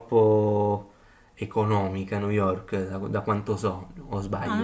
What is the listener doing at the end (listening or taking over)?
taking over